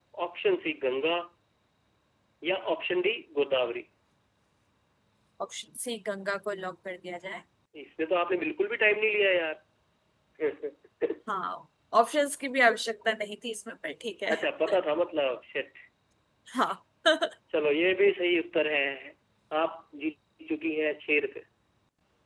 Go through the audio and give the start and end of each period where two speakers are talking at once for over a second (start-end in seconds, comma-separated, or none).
none